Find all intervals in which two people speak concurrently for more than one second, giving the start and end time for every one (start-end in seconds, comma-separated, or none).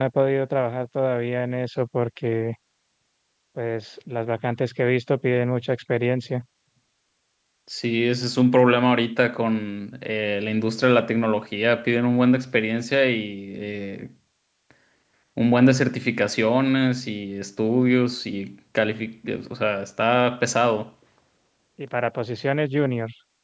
none